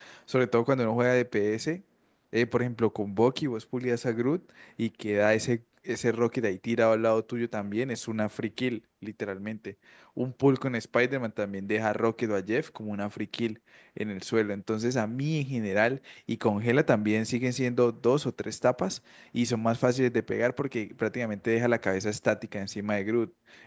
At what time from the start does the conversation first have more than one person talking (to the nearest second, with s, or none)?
none